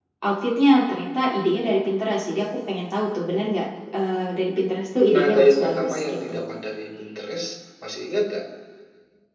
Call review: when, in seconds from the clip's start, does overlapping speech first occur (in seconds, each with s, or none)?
5.0 s